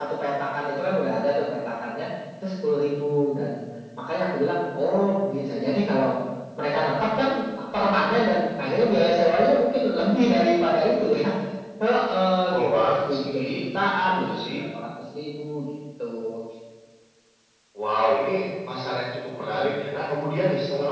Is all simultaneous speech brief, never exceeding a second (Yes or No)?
No